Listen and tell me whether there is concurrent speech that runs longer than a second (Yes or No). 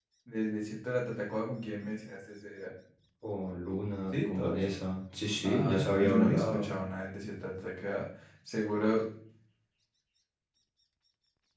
Yes